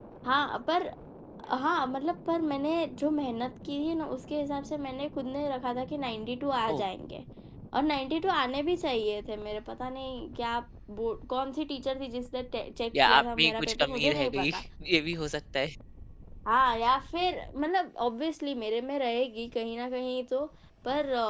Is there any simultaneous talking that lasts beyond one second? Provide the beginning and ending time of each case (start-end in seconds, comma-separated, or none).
12.9-14.5